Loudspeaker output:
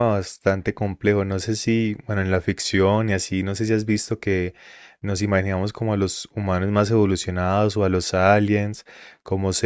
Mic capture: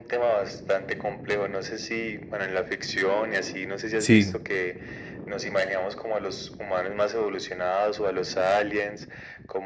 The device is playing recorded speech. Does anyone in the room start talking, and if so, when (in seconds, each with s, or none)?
4.0 s